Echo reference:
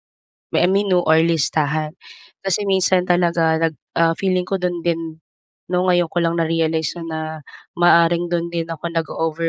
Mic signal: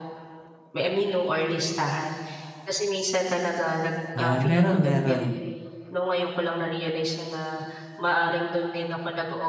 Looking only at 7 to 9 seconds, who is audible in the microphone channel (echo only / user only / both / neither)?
echo only